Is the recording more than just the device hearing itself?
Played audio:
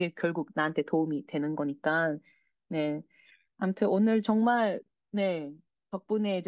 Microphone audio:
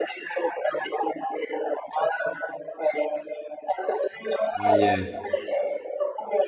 Yes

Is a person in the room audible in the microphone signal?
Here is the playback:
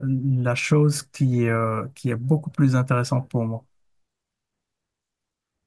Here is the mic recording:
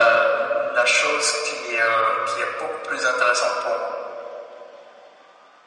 No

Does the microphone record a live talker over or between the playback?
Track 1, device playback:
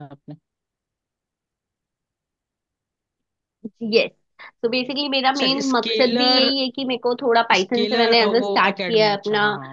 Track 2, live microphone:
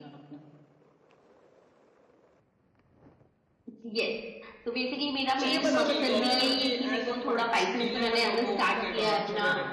Yes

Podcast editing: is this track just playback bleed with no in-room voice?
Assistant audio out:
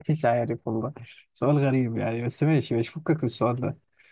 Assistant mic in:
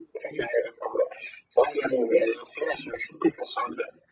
Yes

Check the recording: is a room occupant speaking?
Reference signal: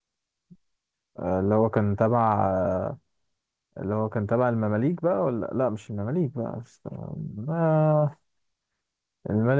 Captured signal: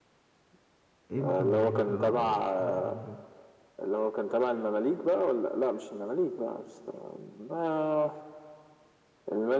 Yes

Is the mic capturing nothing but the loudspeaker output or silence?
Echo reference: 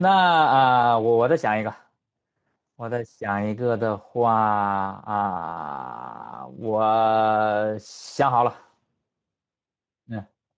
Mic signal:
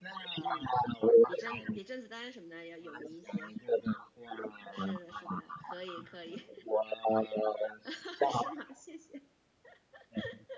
No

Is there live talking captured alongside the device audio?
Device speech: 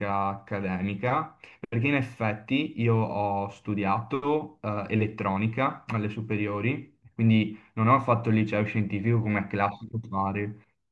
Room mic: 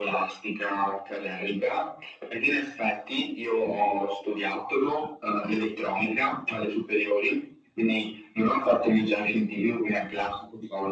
No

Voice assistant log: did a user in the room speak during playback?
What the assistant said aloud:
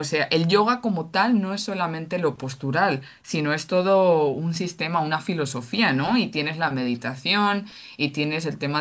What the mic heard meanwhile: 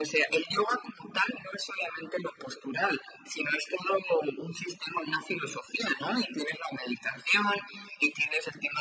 No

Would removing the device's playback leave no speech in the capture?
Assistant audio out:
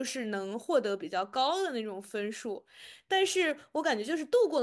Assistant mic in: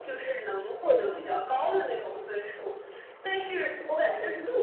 Yes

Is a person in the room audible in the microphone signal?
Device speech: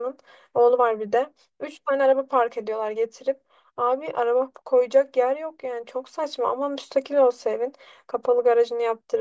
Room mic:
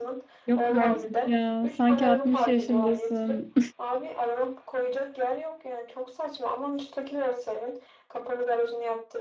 Yes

